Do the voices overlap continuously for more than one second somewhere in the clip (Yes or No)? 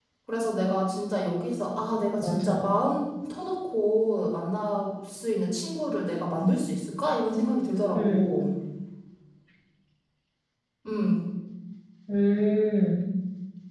No